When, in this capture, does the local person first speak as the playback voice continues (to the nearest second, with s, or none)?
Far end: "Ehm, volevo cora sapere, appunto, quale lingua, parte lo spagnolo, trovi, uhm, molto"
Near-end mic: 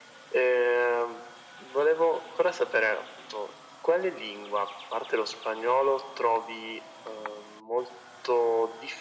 none